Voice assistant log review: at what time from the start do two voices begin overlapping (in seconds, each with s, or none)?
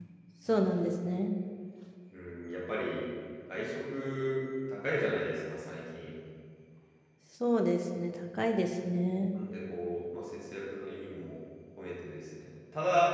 none